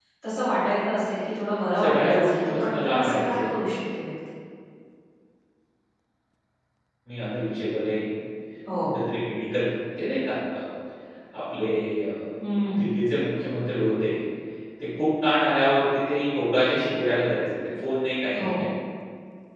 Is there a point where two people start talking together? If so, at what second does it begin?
1.8 s

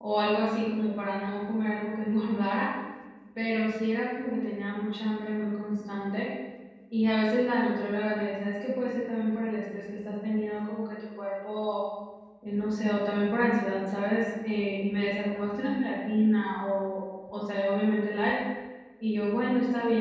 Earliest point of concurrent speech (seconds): none

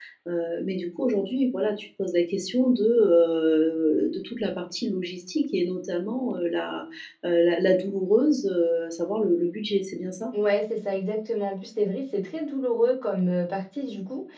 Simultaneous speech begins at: none

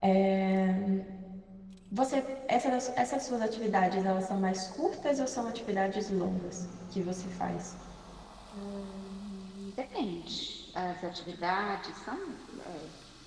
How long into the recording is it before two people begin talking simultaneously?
none

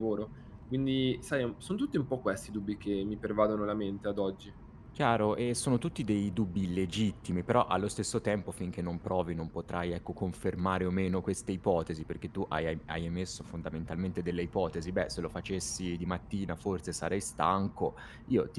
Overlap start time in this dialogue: none

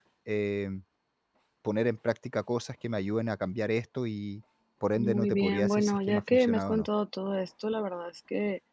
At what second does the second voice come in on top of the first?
5.0 s

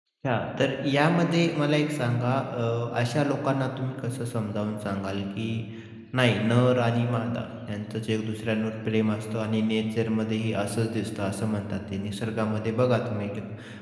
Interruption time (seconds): none

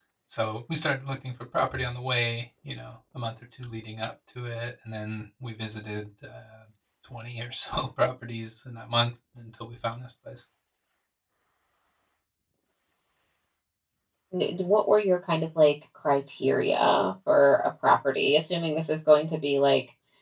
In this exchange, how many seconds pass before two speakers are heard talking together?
none

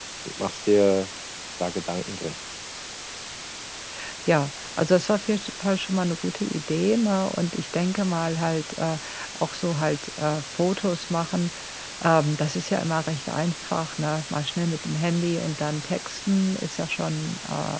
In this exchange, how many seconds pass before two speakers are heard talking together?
none

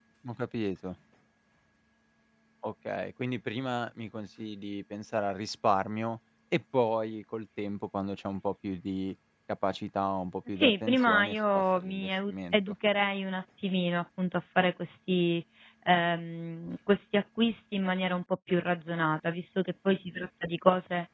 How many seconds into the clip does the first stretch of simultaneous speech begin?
10.5 s

